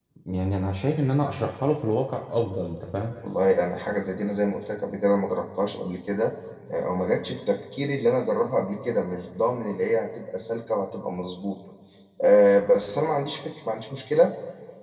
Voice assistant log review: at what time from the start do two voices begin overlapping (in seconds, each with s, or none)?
none